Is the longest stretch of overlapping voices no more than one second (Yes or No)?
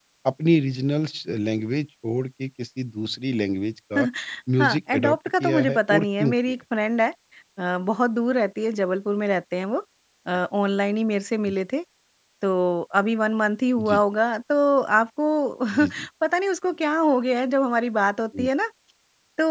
No